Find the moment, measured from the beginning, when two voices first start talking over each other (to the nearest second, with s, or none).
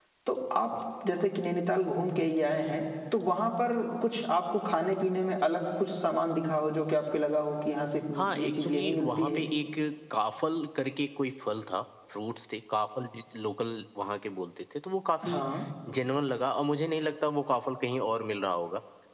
8 s